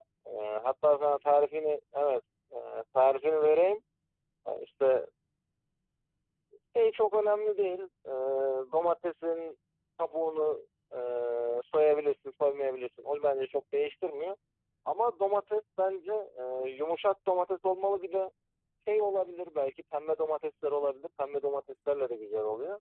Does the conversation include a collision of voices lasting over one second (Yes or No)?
No